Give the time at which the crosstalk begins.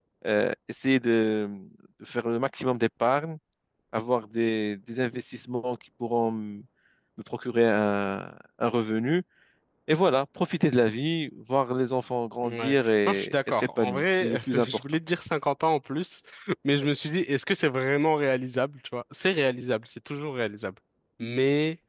12 s

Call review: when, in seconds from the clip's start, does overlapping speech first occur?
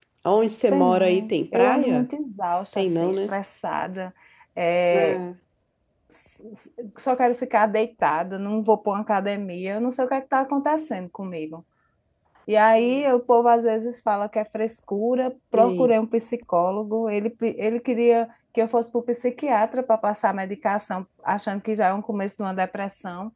1 s

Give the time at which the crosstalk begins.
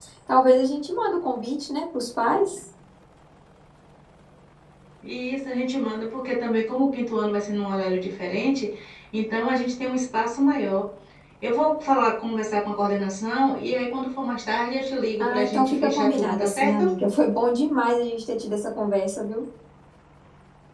15 s

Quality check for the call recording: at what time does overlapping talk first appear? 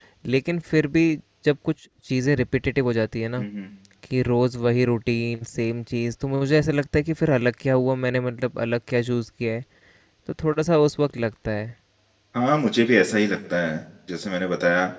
none

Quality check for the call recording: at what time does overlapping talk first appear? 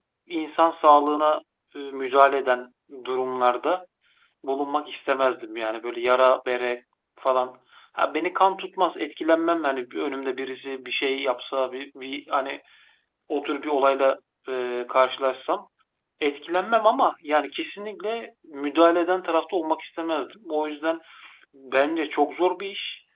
none

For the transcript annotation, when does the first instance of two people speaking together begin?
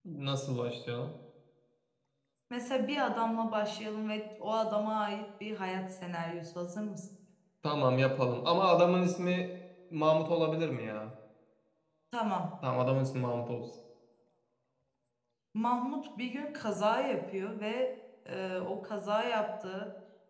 none

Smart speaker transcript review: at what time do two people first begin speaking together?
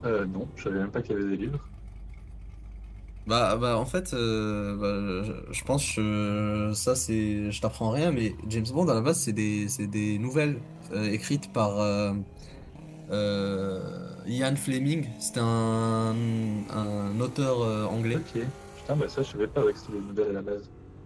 none

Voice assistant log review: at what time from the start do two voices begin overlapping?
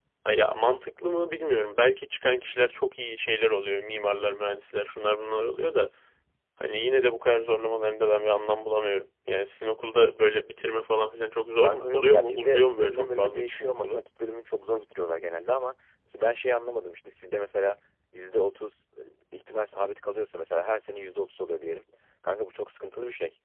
12 s

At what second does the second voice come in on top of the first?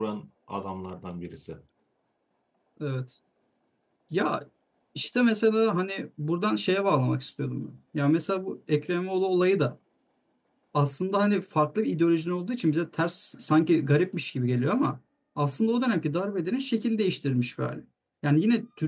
none

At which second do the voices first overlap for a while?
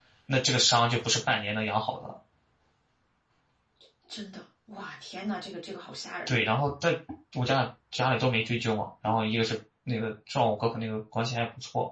none

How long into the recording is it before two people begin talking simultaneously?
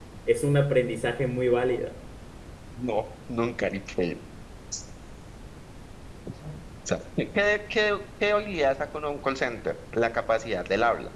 none

